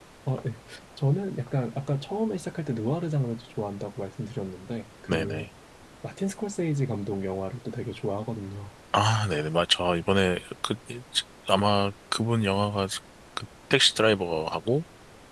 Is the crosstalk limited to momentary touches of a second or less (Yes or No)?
Yes